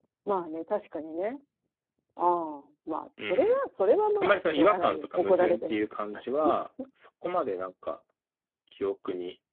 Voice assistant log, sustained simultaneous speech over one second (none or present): present